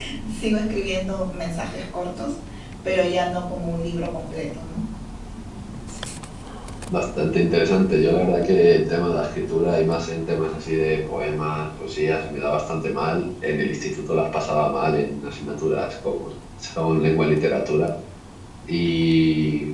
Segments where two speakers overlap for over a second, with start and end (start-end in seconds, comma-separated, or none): none